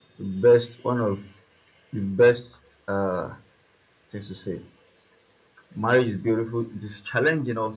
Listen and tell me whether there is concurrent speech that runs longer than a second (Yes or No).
No